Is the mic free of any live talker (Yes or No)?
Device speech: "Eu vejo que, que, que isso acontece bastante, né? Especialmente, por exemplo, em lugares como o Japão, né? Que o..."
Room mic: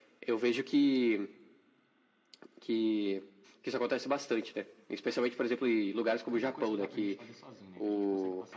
No